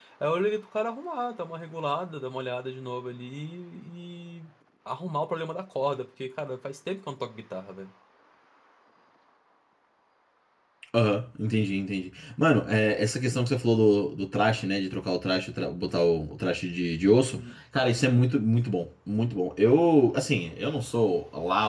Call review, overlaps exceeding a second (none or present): none